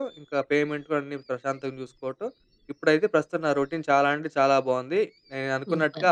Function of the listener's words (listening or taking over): listening